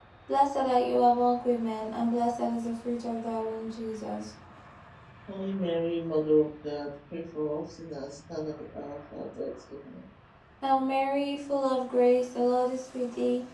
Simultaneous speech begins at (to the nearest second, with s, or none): none